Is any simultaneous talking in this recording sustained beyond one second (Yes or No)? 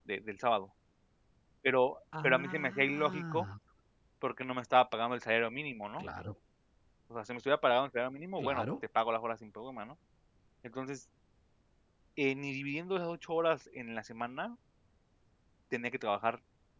Yes